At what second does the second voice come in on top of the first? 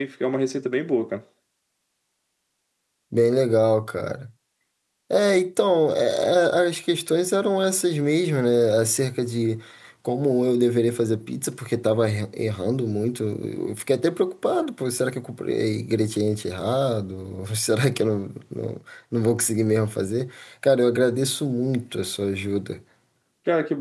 none

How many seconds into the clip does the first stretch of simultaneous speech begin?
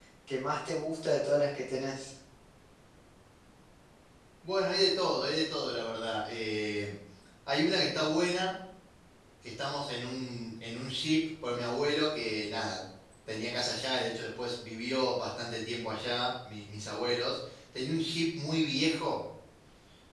none

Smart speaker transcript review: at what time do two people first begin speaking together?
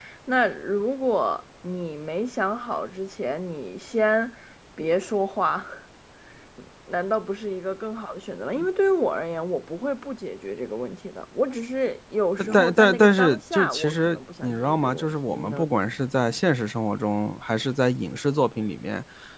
12.4 s

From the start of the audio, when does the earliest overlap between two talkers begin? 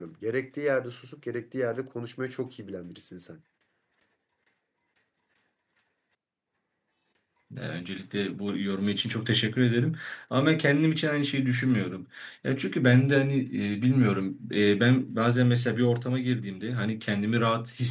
none

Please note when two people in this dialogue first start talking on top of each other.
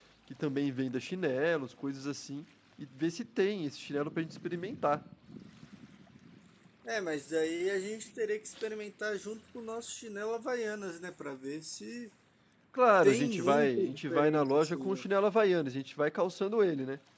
13.0 s

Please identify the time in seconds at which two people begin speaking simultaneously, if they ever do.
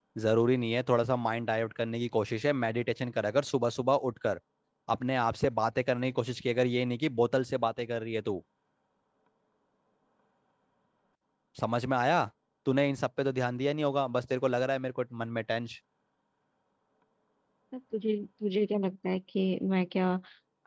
none

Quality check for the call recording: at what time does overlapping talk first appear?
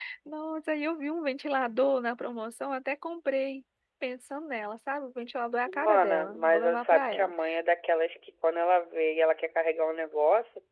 5.7 s

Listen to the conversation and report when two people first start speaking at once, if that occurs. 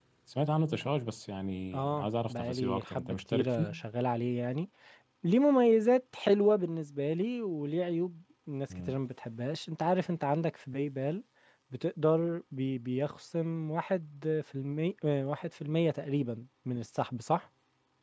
1.7 s

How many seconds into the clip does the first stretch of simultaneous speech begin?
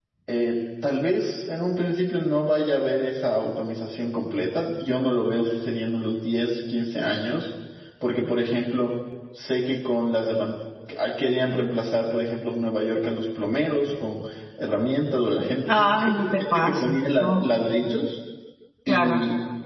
15.7 s

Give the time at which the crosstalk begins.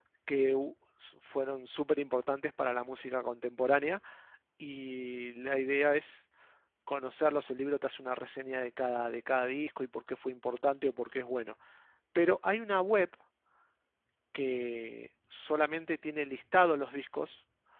none

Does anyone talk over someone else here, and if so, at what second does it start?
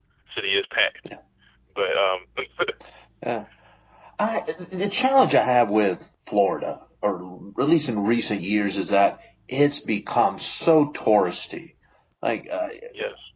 none

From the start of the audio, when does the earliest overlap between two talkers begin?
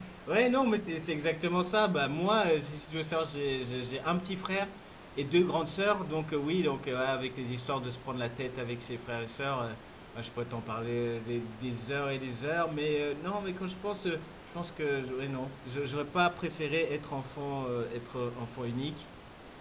none

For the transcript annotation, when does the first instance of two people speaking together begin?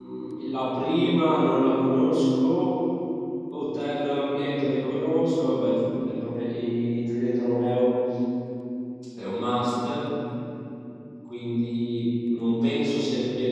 none

